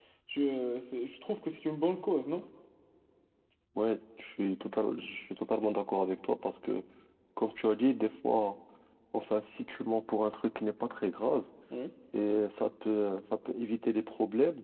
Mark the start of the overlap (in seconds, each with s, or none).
none